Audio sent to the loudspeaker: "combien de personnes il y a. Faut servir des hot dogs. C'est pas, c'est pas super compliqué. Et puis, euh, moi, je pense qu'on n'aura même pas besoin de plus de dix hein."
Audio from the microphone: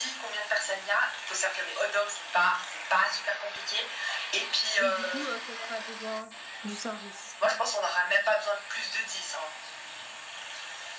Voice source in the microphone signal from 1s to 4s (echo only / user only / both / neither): echo only